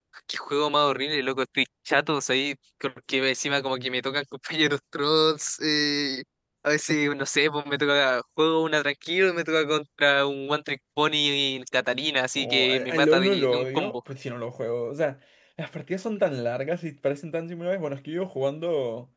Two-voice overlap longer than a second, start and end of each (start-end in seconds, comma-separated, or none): 12.4-14.0